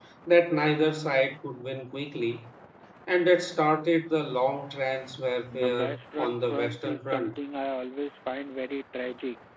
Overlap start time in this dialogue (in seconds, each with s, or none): 5.5 s